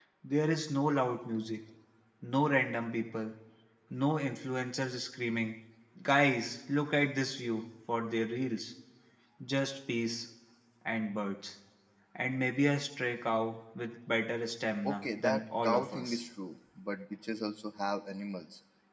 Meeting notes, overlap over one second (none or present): present